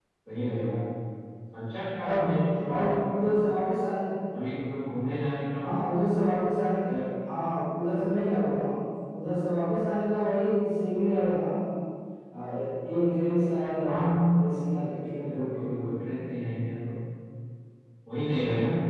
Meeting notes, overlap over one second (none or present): none